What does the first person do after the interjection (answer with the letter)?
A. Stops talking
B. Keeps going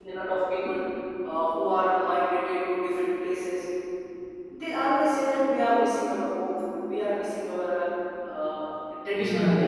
A